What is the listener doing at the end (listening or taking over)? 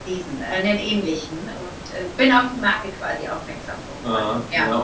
taking over